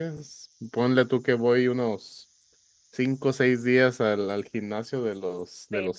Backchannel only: No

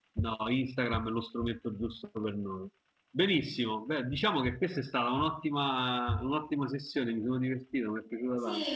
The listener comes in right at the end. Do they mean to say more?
Yes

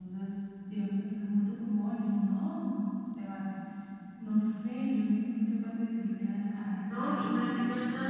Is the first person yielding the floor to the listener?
Yes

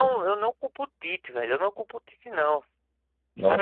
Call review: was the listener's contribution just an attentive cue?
Yes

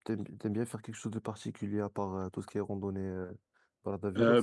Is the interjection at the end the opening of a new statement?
Yes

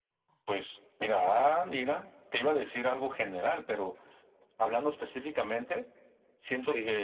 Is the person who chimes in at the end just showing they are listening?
Yes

